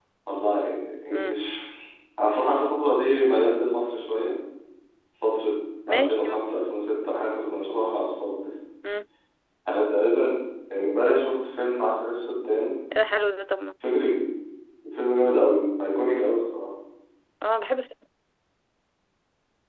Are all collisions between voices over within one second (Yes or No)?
Yes